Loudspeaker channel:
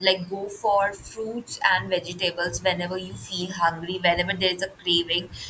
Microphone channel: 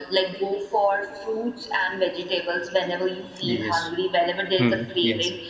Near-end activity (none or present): present